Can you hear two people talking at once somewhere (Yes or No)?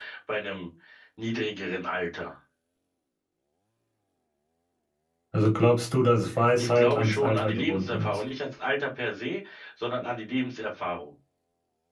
Yes